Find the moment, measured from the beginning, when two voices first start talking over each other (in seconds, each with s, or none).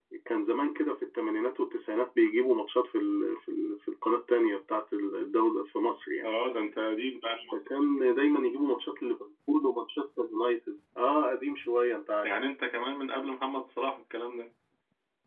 none